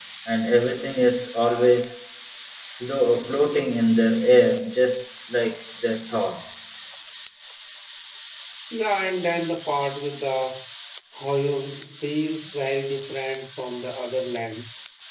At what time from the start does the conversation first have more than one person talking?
none

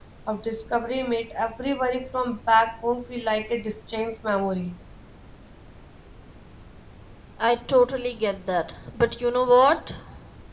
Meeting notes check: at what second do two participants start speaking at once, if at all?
none

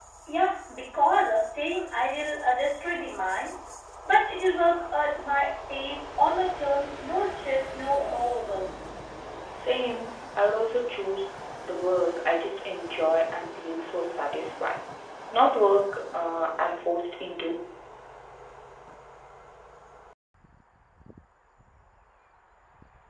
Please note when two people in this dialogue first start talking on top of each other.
none

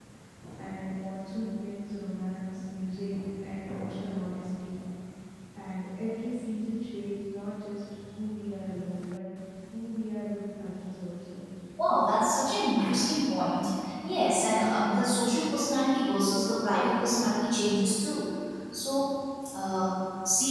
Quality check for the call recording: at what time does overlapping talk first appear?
none

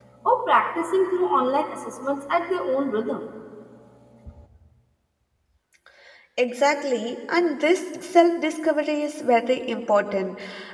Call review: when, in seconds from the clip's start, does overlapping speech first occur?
none

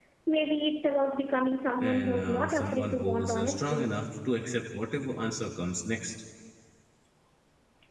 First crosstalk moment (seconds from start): 1.8 s

